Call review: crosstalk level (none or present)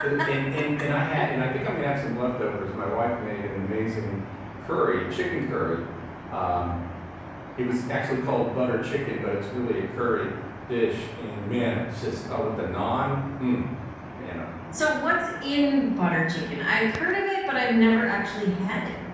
none